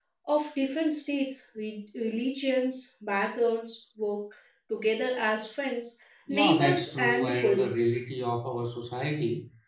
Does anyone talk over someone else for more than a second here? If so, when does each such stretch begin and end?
6.3-8.0

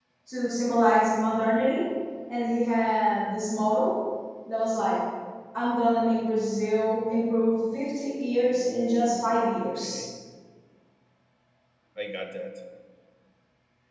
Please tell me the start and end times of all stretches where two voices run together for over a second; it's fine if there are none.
8.5-9.8

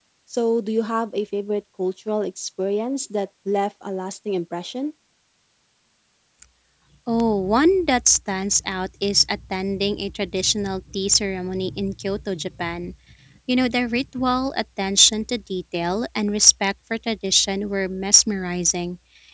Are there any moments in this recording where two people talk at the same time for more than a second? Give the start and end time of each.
none

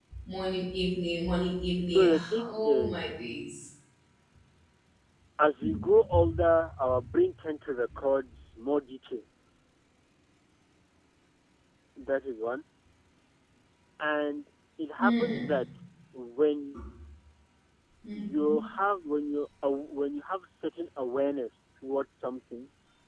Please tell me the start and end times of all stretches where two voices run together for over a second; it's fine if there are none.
1.8-3.0

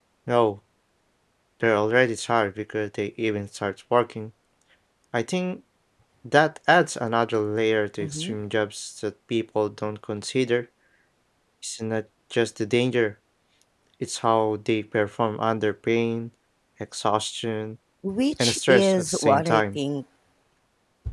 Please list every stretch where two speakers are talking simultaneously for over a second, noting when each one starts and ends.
18.4-19.8

